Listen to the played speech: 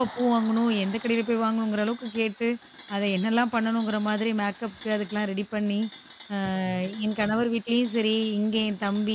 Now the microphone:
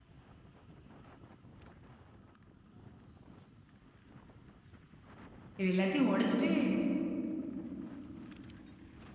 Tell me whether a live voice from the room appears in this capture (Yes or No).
Yes